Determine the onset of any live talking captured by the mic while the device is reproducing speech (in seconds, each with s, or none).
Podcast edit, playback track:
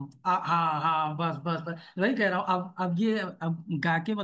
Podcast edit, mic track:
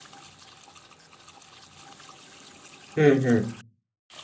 3.0 s